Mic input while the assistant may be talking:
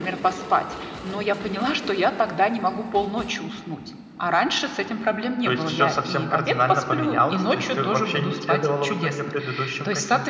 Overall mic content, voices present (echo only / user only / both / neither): echo only